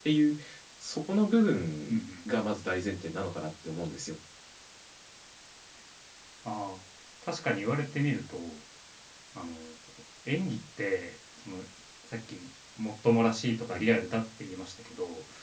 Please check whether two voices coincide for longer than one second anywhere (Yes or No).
No